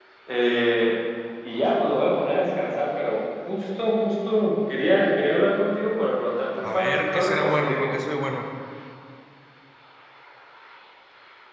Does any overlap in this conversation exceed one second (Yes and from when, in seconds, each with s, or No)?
Yes, from 6.6 s